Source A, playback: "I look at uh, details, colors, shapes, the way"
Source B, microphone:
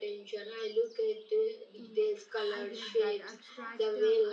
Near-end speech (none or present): present